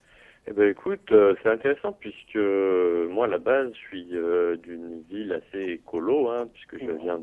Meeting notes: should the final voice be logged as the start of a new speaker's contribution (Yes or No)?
No